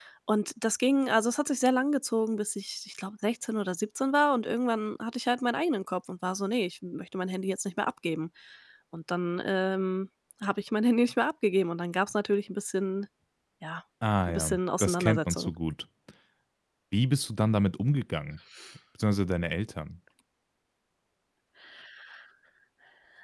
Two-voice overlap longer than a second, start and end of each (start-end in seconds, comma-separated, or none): 14.3-15.5